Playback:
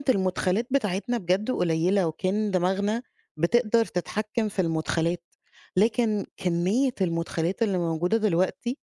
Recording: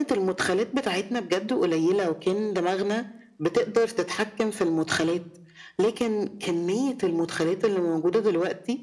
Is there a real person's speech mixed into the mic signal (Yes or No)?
No